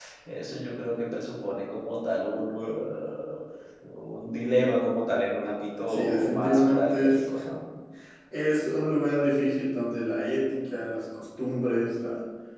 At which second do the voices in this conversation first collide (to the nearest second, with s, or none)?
6 s